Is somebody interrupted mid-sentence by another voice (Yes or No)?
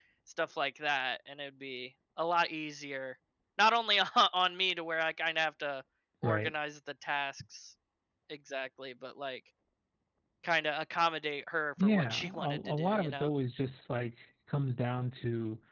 Yes